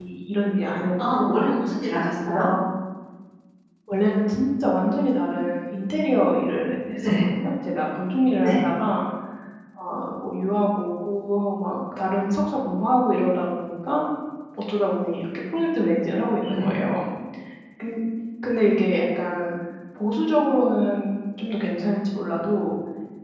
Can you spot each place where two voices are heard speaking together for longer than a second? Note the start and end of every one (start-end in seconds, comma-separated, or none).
none